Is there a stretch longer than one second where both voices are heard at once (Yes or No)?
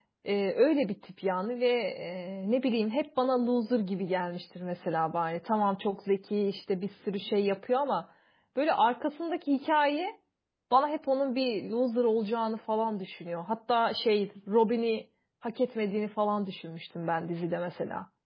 No